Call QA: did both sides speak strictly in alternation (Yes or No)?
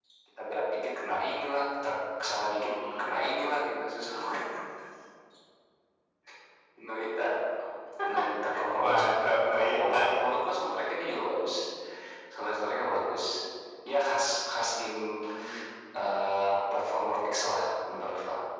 No